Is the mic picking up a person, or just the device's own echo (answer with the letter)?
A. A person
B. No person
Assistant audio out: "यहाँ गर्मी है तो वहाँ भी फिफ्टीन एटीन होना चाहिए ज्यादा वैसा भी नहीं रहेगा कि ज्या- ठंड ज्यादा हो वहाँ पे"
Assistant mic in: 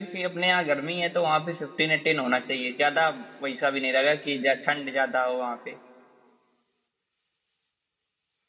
B